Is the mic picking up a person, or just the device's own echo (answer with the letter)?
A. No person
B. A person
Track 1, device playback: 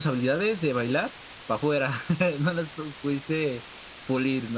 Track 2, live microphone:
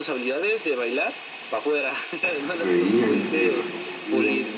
B